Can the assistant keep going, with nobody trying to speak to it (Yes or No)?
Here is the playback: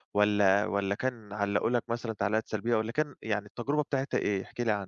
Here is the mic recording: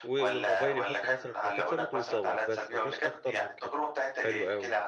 No